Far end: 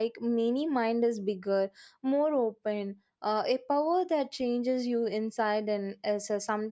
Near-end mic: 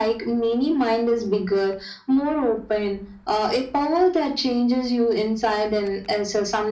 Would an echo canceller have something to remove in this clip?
Yes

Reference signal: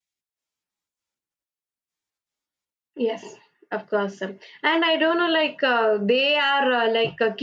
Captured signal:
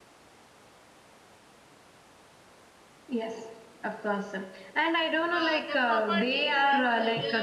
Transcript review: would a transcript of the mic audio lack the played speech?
No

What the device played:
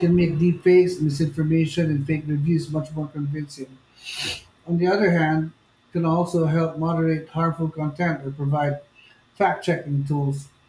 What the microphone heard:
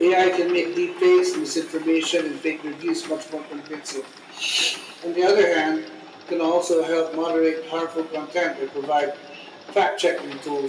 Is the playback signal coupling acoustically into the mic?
Yes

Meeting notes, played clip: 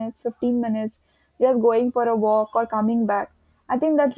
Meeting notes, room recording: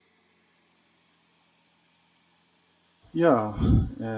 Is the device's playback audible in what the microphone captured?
No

